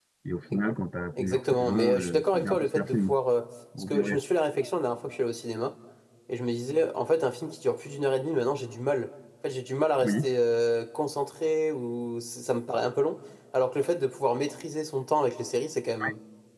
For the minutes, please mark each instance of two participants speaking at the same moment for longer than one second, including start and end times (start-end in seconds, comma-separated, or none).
1.2-3.1